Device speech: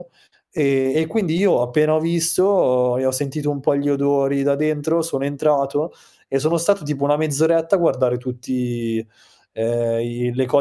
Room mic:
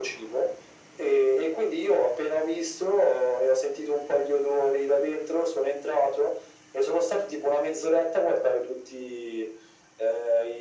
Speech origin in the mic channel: echo only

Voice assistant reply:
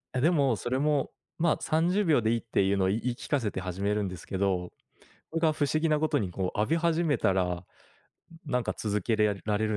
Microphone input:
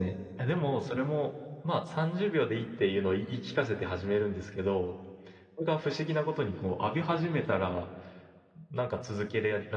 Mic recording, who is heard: echo only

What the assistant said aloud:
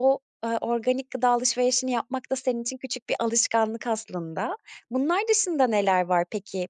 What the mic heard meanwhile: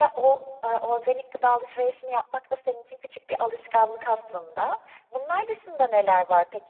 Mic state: echo only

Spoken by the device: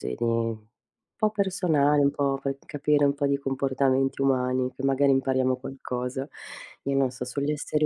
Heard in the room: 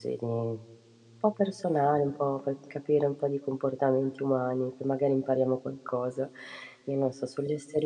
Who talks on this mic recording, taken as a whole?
echo only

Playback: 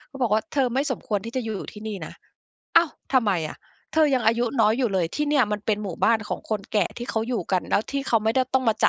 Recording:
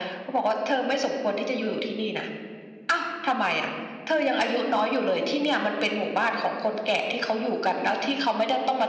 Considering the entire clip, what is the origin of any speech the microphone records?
echo only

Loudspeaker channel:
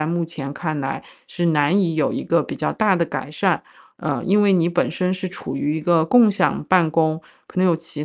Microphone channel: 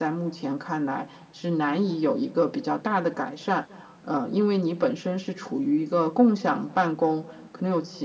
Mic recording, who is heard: echo only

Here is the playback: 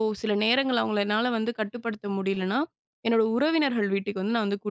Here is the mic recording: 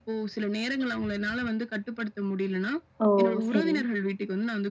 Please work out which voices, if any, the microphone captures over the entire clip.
both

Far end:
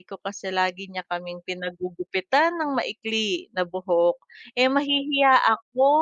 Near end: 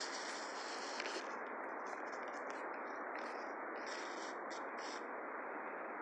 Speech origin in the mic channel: neither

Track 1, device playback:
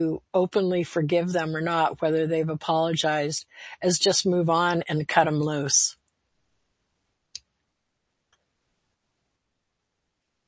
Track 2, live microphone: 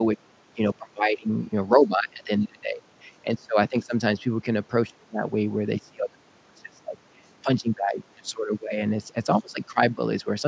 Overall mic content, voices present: user only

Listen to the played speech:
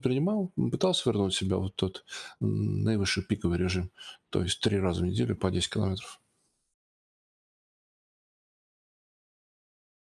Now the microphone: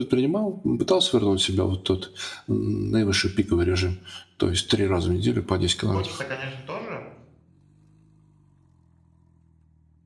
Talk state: both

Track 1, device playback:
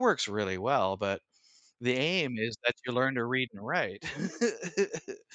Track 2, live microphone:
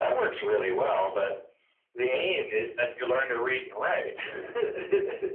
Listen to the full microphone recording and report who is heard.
echo only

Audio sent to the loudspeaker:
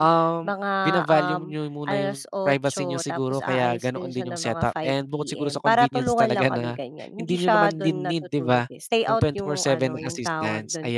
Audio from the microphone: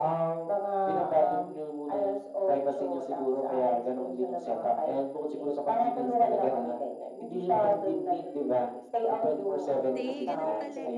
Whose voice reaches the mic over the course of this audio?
both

